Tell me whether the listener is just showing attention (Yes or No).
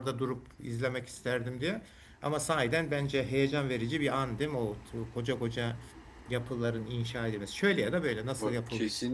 No